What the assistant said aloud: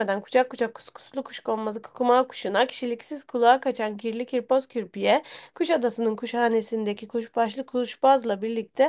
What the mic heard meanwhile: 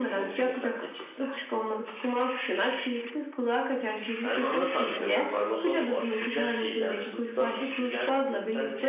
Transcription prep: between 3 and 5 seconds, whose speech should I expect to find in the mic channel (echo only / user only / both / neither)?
both